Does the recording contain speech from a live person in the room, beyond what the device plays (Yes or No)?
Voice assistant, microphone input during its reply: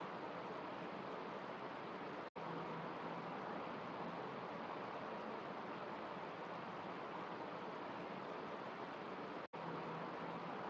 No